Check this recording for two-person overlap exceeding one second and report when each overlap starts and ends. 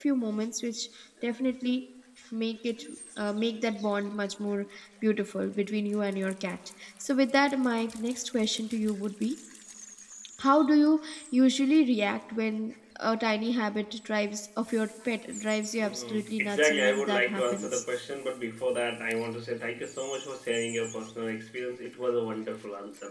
15.8-17.8

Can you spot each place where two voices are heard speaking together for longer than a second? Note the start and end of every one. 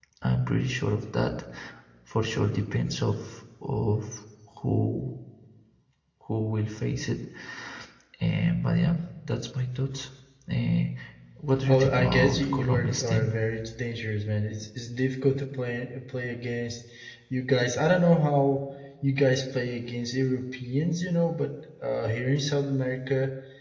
11.7-13.3

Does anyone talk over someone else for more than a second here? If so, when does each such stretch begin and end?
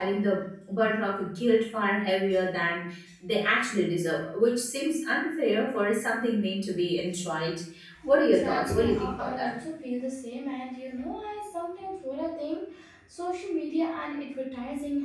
8.2-9.5

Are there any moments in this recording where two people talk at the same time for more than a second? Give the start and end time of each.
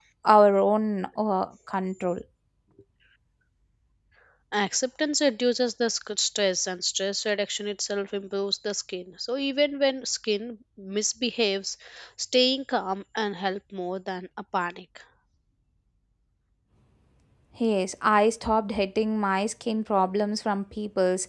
none

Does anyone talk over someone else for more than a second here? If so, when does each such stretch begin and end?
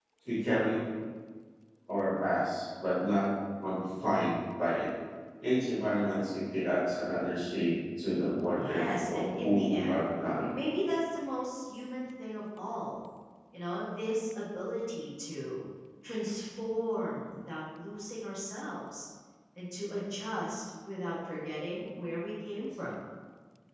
8.5-10.0

